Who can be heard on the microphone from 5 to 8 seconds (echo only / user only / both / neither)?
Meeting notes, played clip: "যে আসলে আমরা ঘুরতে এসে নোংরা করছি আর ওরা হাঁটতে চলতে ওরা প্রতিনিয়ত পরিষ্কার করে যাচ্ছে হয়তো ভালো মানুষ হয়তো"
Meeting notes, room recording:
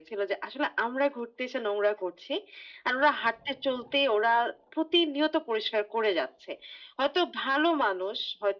echo only